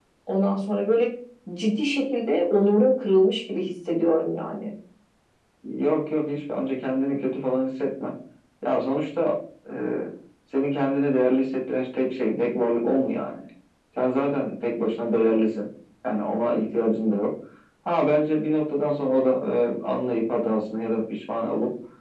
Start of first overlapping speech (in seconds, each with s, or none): none